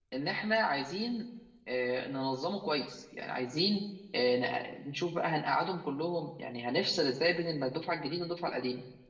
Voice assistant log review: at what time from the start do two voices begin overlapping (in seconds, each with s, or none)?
none